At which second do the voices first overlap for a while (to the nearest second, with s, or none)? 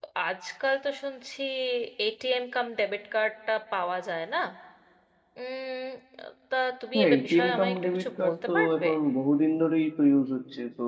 7 s